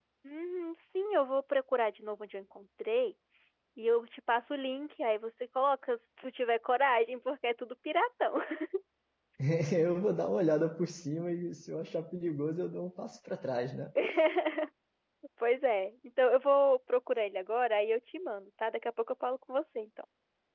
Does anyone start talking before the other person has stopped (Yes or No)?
No